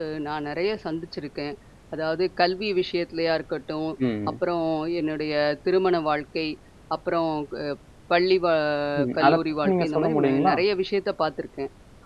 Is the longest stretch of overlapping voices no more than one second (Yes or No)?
No